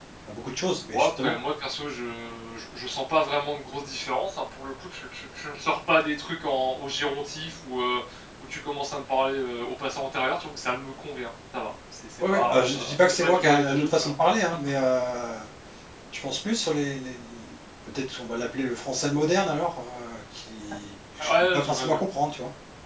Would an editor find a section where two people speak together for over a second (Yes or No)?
Yes